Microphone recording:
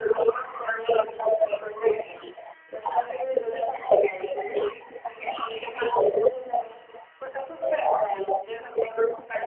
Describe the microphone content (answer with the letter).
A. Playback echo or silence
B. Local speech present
A